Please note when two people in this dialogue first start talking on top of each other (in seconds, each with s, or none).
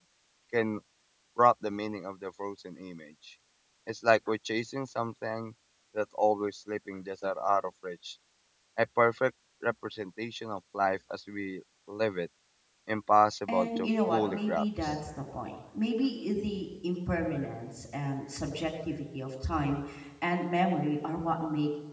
13.5 s